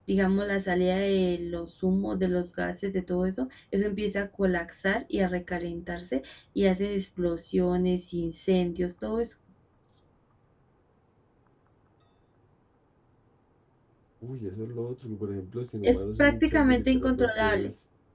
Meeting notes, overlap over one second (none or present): present